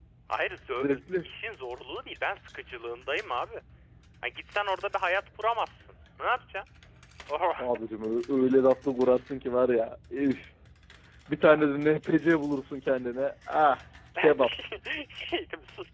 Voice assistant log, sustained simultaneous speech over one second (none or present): none